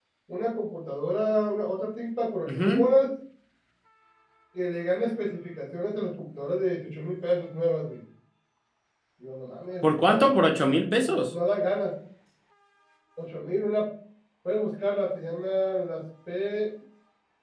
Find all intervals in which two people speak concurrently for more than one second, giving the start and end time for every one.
none

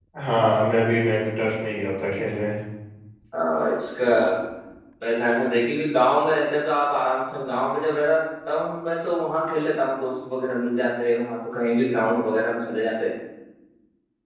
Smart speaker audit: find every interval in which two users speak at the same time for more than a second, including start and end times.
none

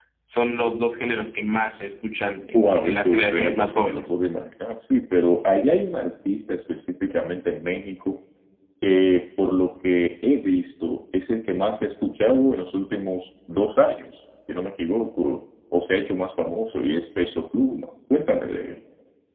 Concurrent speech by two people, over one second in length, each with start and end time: 2.5-4.1

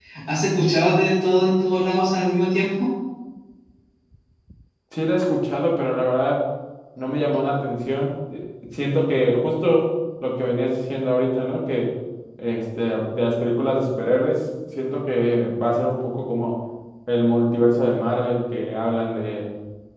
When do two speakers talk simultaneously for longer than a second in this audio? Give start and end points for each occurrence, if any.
none

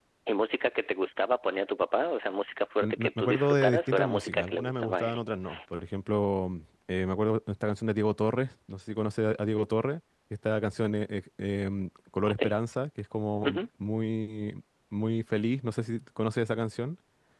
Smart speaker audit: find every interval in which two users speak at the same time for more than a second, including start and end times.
2.8-5.2

